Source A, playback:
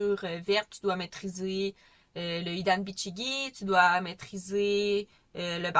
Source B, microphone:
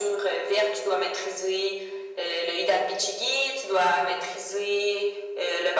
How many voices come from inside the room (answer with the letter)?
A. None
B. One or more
A